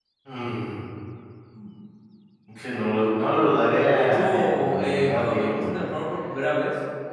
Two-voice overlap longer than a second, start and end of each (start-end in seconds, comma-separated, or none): 3.9-5.7